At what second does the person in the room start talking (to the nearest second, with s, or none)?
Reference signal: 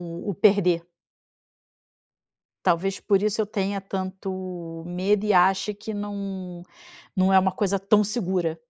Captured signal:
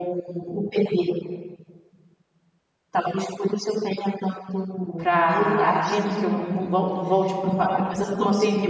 5 s